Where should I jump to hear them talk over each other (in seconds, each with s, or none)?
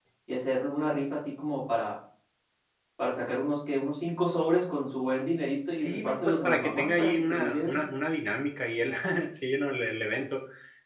5.8 s